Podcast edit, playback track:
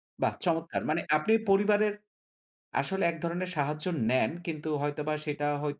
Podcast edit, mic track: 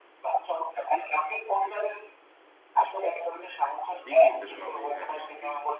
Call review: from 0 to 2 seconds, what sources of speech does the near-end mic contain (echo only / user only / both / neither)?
echo only